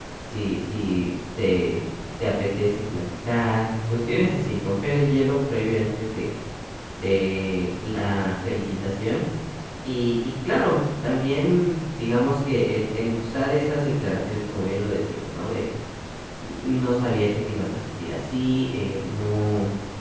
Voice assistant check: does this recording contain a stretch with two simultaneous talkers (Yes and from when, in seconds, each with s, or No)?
No